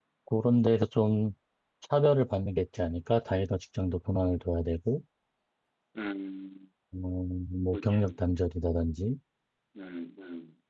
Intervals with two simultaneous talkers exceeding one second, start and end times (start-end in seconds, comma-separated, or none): none